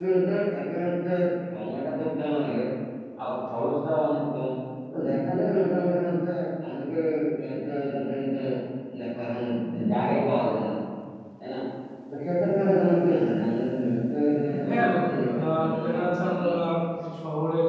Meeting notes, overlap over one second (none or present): present